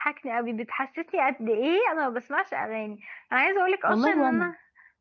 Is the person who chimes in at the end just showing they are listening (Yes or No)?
Yes